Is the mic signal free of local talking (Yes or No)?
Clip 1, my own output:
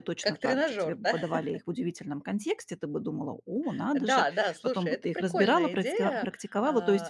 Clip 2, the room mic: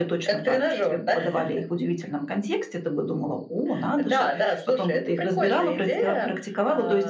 Yes